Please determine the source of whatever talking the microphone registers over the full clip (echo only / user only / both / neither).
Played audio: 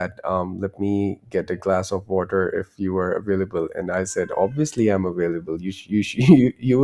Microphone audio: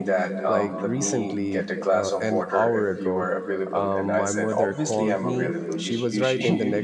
both